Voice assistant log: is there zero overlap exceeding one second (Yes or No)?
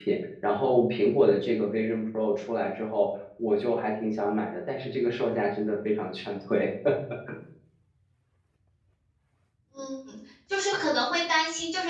Yes